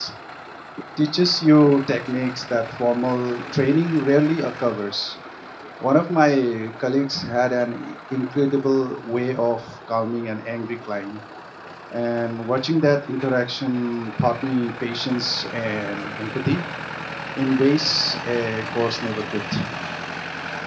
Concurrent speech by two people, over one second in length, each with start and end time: none

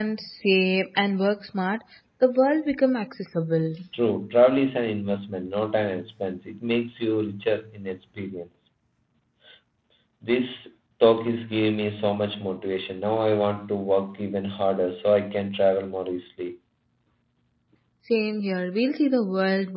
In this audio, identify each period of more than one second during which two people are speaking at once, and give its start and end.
none

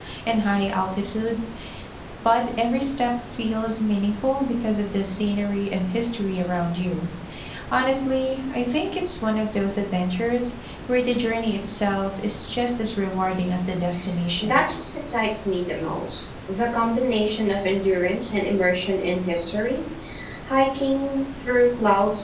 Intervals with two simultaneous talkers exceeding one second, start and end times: none

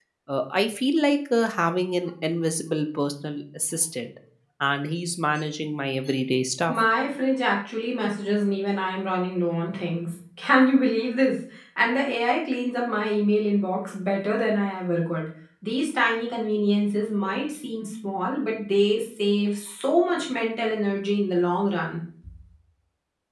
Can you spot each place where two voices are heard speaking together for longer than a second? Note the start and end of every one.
none

